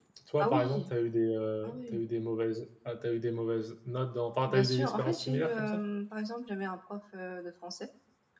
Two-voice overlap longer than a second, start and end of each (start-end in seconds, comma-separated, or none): 4.5-5.8